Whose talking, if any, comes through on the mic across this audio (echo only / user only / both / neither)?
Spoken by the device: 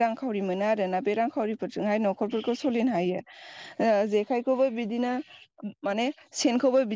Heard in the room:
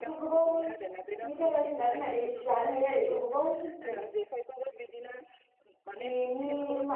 both